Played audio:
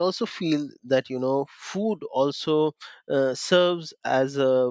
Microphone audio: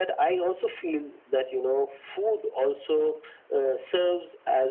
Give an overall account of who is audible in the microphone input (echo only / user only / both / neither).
echo only